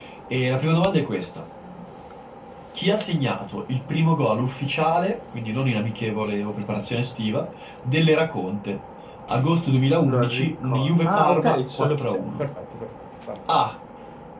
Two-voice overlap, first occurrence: 10.1 s

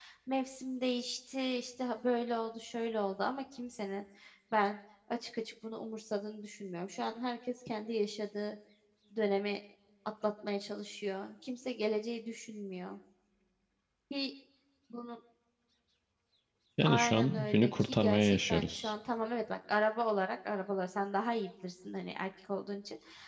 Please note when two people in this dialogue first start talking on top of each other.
16.9 s

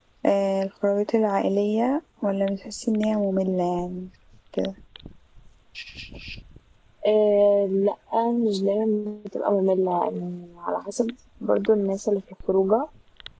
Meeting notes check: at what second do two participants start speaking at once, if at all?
none

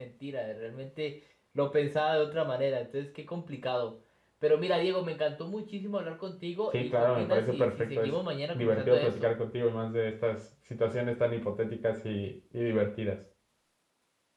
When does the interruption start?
6.7 s

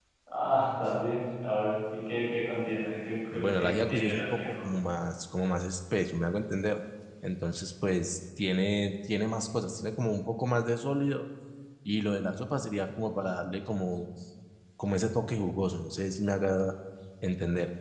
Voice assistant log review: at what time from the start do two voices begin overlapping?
3.3 s

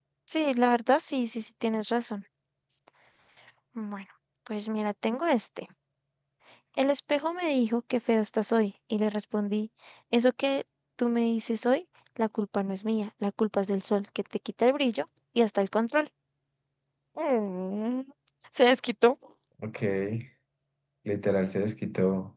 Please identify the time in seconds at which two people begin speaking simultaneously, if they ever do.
none

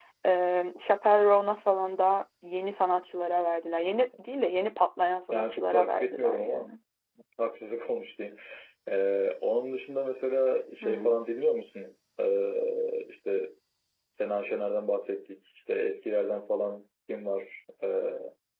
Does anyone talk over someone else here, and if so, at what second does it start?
5.3 s

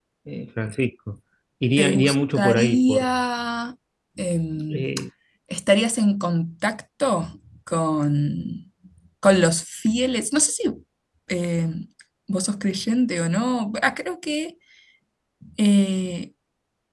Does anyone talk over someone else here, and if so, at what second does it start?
1.8 s

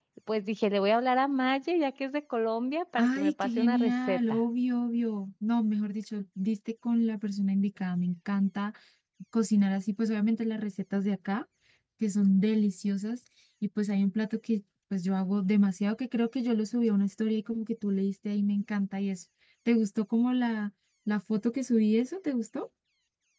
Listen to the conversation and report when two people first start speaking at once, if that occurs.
3.0 s

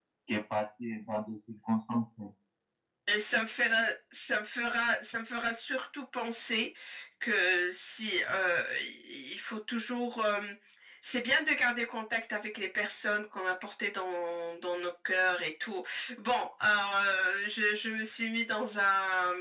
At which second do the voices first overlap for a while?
none

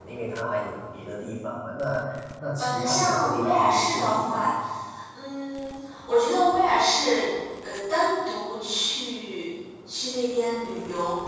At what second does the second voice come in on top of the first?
2.6 s

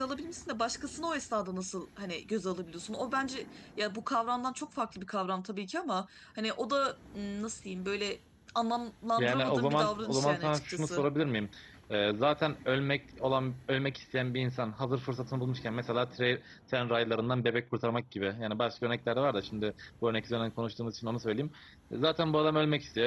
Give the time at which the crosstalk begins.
9.2 s

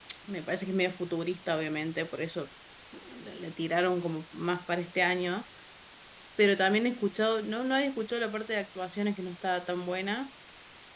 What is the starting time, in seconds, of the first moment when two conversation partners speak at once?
none

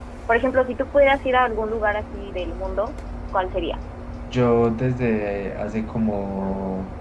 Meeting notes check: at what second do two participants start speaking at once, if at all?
none

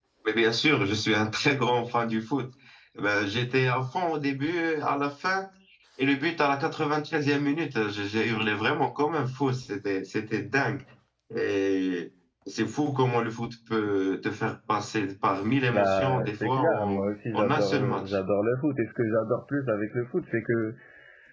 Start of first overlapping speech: 15.7 s

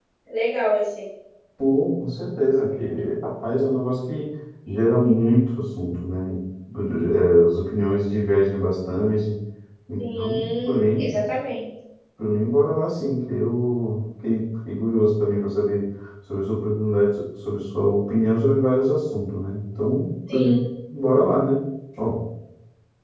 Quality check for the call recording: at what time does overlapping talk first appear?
10.0 s

